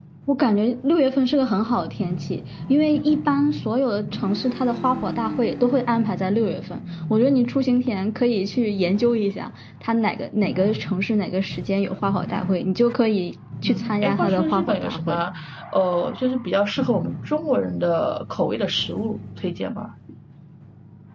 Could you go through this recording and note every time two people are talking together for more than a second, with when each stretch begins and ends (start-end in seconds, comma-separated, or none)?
13.6-15.2